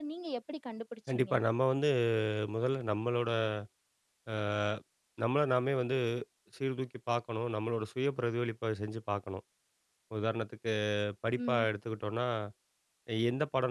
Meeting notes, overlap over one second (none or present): none